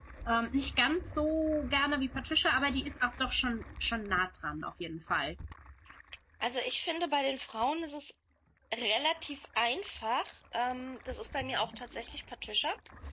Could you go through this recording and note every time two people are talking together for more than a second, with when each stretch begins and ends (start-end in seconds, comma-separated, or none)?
none